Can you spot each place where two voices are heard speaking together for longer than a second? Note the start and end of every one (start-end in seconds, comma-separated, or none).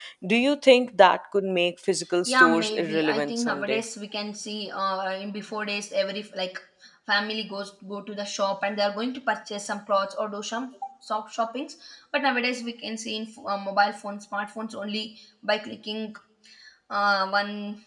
2.3-3.8